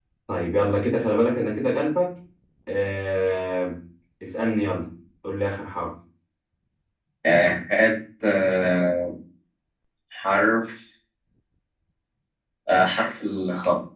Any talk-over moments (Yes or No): No